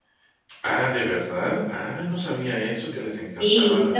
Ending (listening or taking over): taking over